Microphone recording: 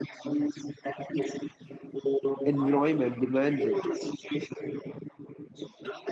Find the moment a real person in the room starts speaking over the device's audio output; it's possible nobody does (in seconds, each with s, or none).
2.4 s